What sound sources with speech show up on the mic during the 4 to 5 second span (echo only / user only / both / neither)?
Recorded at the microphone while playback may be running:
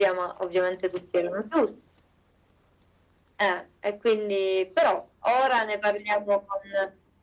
echo only